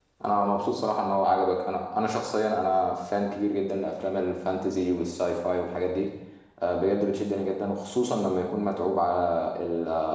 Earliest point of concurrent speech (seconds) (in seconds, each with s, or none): none